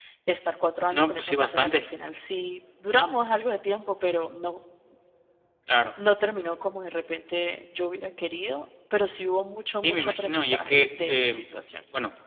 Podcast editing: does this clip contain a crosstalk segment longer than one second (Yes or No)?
Yes